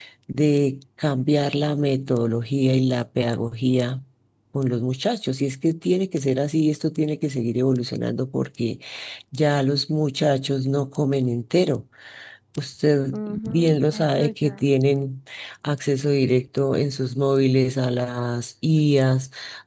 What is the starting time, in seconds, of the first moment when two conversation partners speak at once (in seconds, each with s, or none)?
13.1 s